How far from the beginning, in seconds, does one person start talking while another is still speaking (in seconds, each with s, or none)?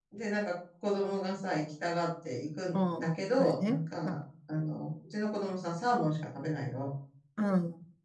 2.7 s